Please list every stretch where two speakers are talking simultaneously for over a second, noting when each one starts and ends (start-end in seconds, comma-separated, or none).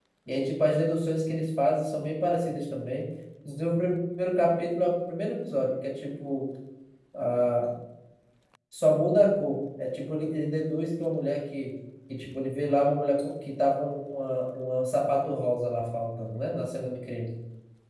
none